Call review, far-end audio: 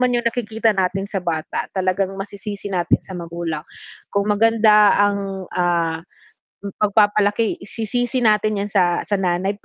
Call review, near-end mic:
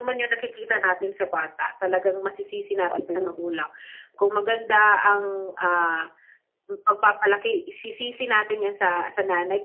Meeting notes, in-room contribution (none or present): present